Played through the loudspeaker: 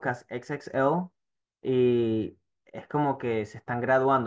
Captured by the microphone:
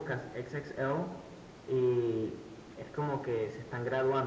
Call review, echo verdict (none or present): present